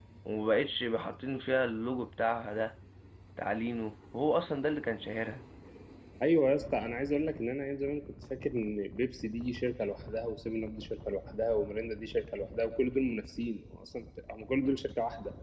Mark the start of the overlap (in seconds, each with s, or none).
none